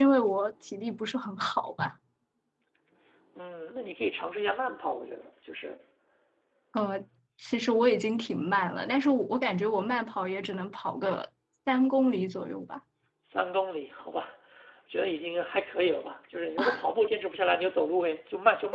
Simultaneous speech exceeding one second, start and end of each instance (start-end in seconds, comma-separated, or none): none